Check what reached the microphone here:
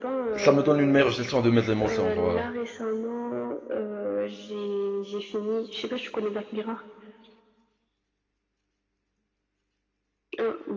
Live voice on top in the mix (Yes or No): Yes